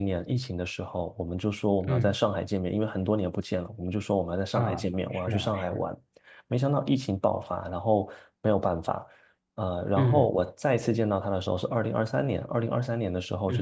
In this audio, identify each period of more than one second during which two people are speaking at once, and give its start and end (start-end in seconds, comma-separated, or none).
4.5-5.8